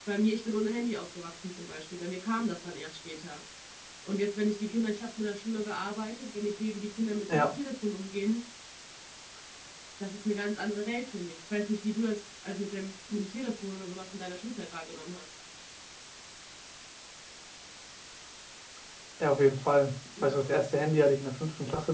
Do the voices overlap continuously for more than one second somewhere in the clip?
No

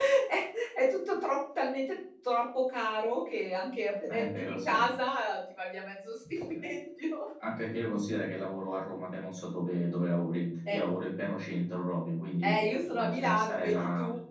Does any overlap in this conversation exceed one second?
Yes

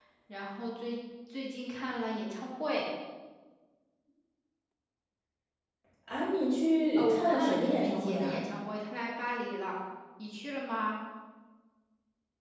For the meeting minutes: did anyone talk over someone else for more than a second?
Yes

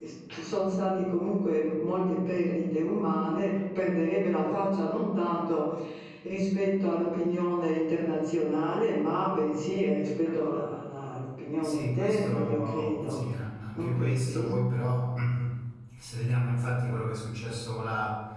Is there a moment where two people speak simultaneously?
Yes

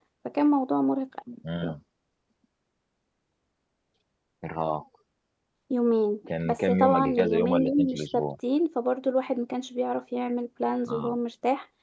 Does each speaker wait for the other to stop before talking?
No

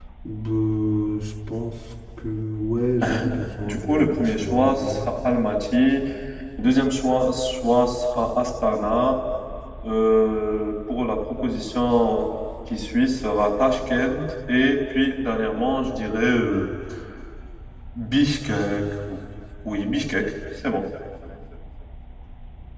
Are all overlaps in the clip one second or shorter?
No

